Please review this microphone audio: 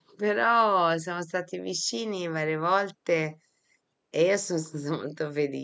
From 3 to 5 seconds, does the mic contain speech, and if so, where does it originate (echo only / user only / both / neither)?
user only